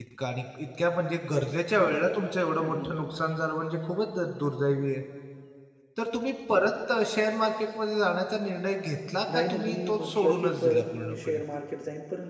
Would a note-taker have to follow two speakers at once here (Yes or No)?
Yes